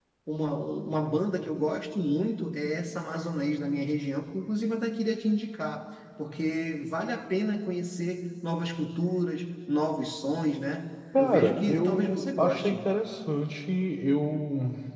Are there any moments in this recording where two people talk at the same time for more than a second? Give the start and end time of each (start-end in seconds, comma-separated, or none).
11.2-12.8